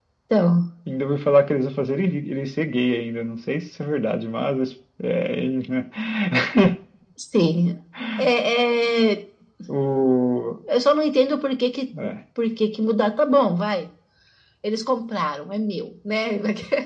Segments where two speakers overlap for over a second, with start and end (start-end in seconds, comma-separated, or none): none